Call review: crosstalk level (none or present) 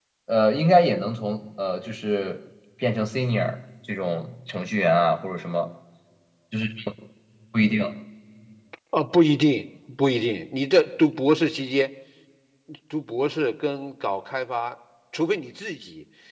none